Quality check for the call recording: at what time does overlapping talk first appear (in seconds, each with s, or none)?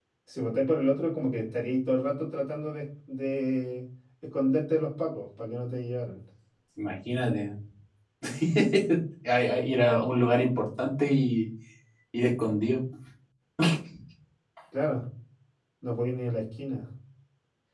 none